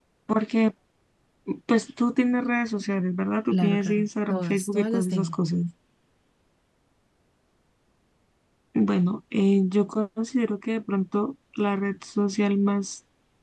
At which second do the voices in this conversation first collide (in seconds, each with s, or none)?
3.5 s